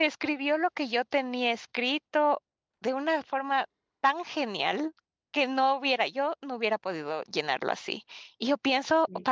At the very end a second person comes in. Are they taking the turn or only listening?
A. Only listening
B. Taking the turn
A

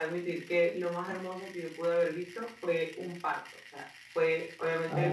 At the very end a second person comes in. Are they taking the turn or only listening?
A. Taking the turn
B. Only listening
B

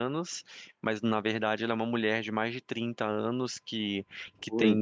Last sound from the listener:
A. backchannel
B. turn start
A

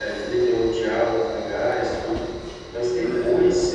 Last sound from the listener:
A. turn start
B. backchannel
B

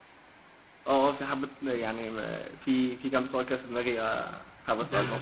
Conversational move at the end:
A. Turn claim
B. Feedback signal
A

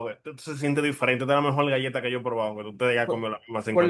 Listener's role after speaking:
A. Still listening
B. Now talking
B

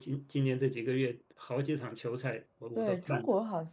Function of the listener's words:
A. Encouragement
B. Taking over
B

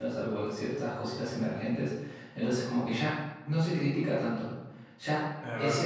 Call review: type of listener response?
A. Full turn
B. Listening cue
B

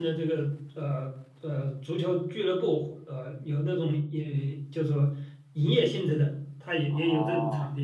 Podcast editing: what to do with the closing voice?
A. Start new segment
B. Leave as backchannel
A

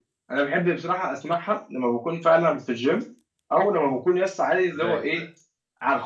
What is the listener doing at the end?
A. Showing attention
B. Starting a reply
A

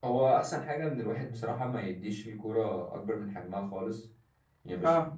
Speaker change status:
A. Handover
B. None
B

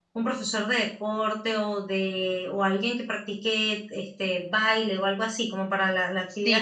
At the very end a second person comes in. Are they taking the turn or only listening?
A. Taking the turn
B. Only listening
A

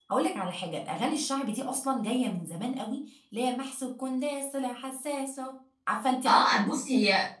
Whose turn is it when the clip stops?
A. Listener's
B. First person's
A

